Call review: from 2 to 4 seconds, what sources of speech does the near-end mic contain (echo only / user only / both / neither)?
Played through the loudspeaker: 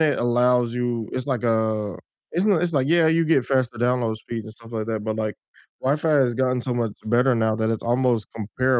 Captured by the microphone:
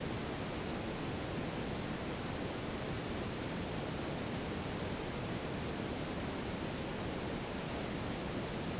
neither